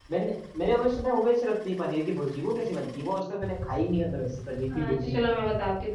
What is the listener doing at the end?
taking over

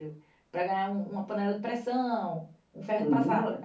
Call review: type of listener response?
taking over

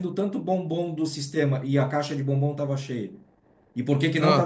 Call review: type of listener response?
listening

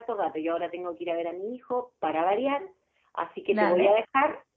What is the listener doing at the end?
listening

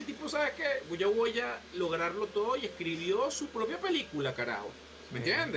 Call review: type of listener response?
listening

